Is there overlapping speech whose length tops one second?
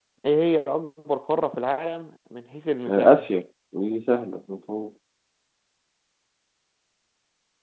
No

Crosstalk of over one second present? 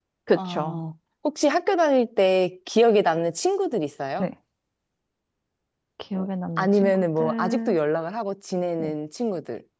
Yes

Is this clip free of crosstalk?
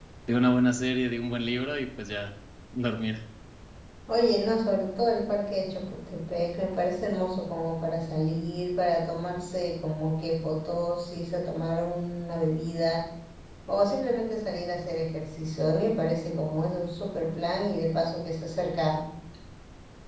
Yes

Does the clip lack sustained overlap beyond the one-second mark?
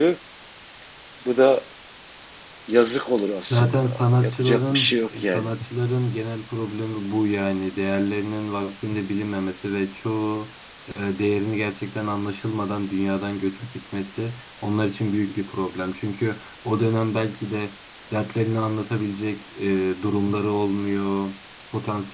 No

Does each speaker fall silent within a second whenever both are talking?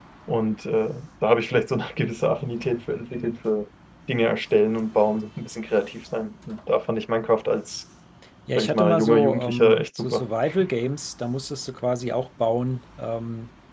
No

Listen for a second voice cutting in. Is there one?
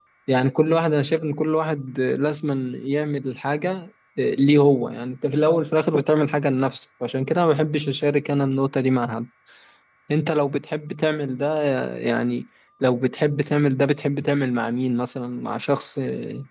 No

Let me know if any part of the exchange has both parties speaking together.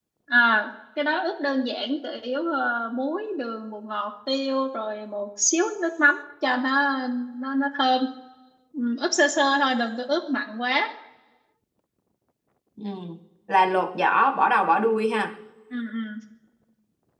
No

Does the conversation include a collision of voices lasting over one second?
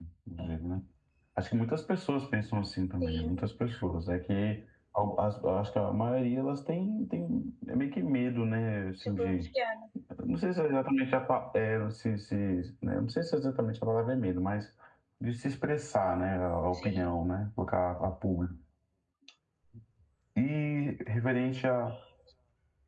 No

